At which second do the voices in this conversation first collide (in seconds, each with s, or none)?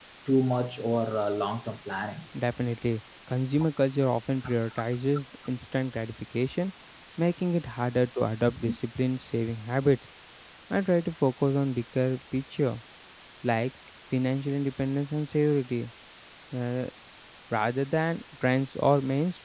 none